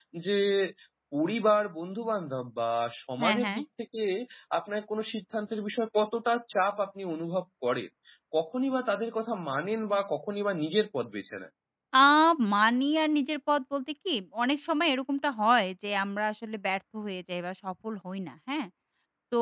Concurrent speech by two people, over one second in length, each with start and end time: none

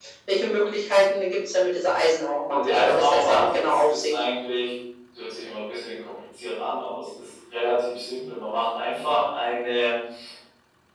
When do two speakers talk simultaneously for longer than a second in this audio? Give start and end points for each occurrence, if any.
2.5-4.2

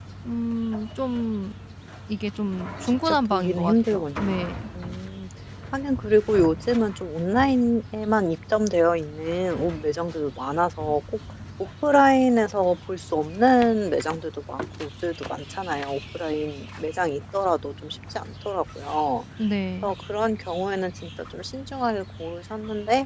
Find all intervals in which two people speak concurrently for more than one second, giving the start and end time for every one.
2.9-4.4

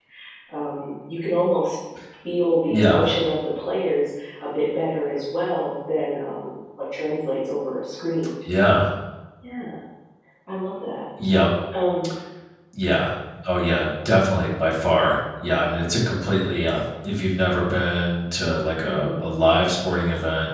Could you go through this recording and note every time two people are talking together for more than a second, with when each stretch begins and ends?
none

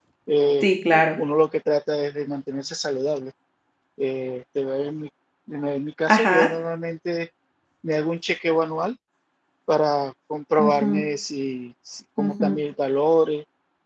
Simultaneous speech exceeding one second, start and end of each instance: none

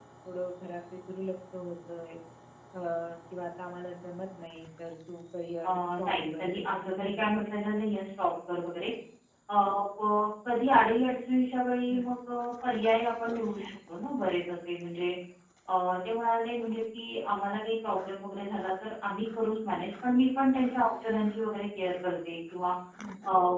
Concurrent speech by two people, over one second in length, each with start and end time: 5.6-7.3

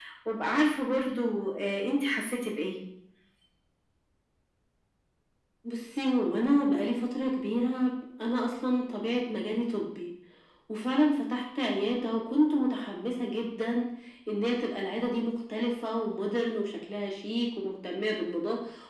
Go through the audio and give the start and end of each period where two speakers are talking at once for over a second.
none

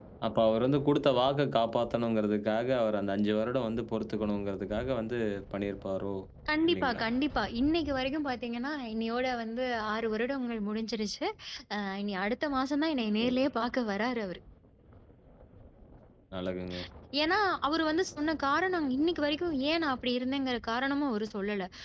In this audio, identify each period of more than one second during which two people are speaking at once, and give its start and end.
none

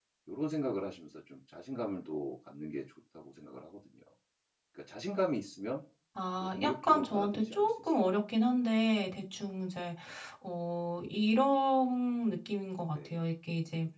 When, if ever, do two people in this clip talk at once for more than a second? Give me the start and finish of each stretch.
6.4-8.0

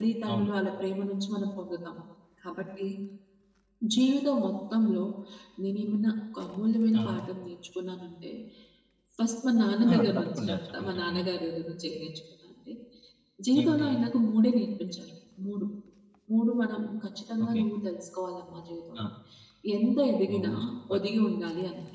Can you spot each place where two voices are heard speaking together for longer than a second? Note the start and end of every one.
9.9-11.2

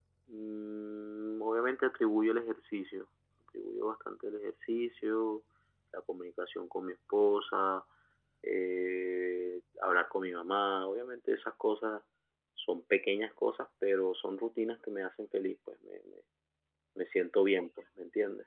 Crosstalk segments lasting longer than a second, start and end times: none

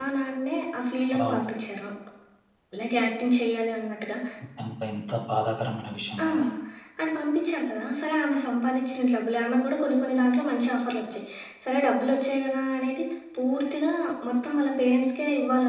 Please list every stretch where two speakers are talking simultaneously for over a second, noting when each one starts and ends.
none

